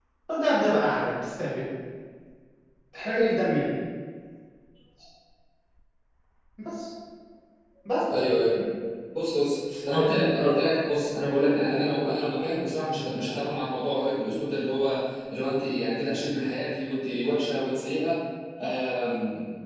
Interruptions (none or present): none